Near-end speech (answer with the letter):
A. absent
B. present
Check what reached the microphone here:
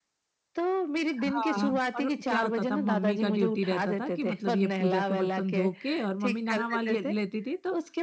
B